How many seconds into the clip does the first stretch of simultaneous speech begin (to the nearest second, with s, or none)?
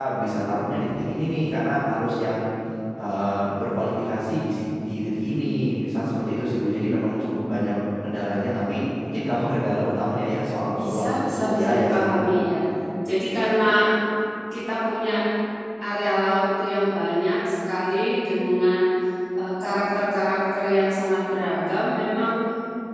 11 s